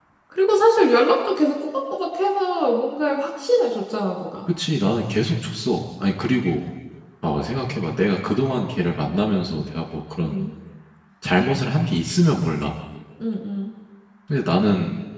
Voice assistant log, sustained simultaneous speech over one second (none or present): none